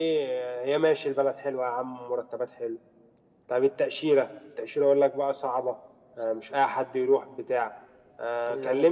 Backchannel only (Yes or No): Yes